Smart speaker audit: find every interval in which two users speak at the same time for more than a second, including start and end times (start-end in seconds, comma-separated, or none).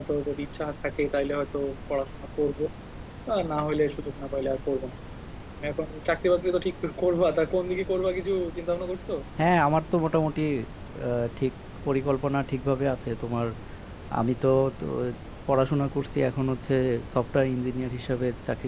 none